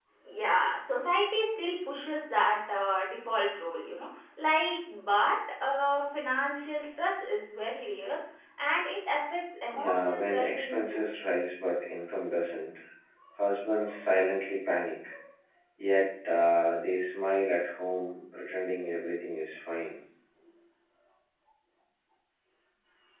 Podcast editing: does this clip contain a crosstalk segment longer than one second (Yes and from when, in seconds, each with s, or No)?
Yes, from 9.7 s